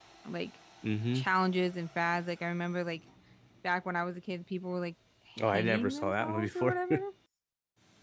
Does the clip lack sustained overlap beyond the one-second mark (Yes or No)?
No